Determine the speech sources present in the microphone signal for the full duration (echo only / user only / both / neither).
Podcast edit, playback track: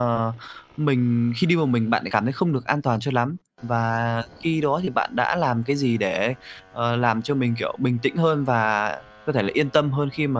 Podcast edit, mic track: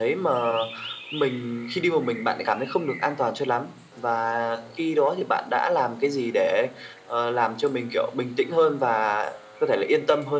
echo only